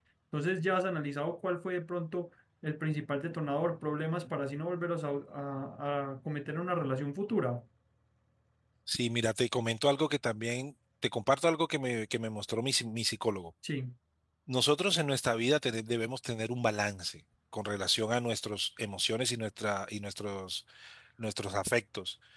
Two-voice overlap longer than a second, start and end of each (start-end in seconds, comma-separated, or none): none